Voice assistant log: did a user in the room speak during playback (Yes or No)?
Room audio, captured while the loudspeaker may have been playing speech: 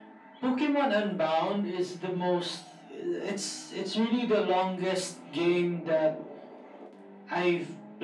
No